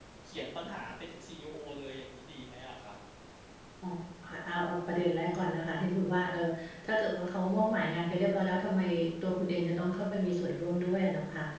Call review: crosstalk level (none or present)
none